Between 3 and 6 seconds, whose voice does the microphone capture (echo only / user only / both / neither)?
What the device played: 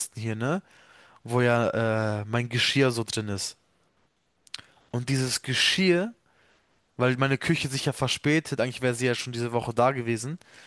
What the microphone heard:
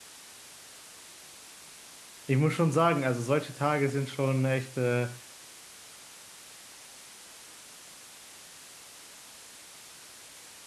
user only